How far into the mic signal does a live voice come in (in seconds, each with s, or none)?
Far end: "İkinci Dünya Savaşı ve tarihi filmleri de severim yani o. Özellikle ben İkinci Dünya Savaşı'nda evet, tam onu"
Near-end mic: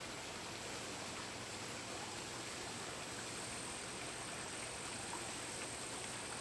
none